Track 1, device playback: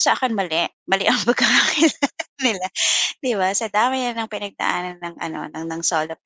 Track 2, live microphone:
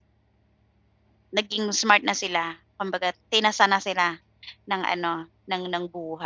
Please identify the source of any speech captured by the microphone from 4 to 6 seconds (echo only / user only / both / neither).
user only